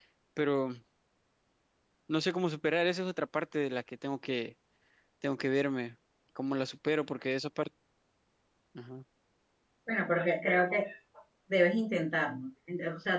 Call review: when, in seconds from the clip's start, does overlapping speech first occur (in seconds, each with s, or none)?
none